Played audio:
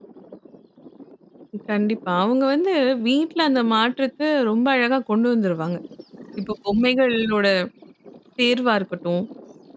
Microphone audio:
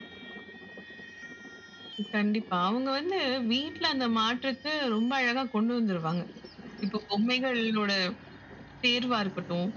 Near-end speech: none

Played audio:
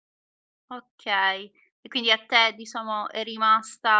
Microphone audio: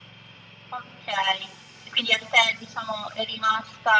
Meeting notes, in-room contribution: none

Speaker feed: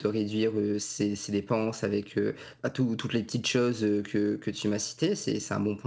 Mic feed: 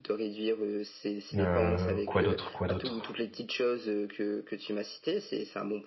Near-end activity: present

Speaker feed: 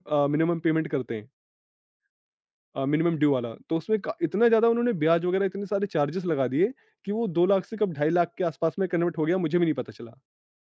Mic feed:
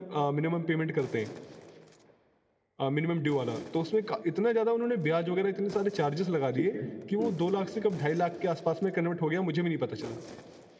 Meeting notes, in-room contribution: present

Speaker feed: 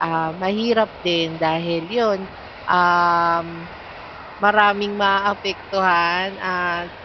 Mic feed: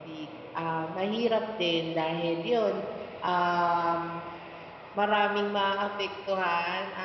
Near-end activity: none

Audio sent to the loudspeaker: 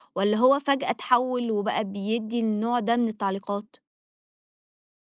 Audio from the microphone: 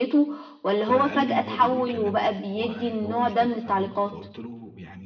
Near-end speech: present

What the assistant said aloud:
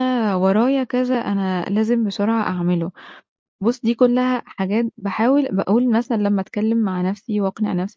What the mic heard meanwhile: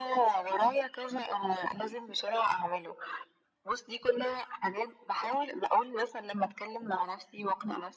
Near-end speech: none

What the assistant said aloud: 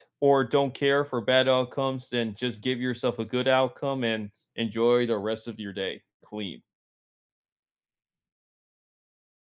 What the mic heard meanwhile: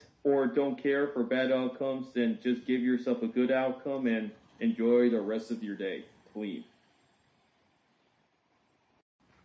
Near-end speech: none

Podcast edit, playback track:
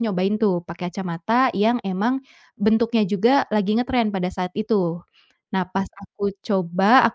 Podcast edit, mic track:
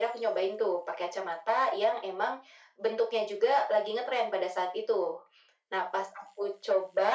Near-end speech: none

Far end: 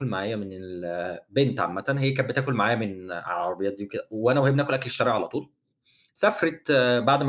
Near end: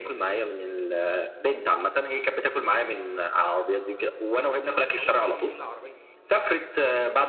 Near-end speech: present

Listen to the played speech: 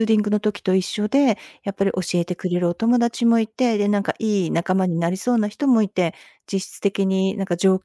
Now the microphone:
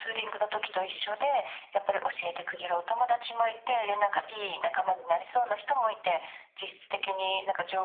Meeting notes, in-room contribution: none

